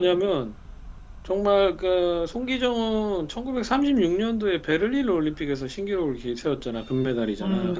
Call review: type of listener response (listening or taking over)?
listening